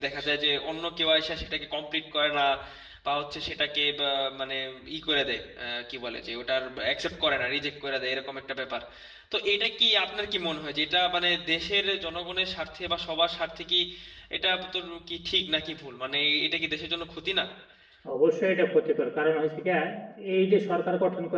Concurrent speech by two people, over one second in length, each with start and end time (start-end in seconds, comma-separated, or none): none